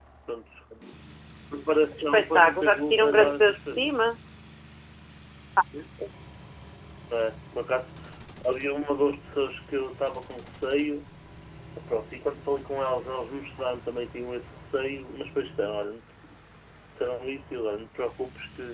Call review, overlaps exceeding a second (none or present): present